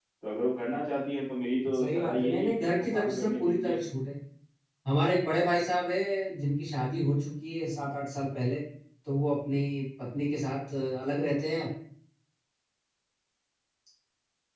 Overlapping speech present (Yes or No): Yes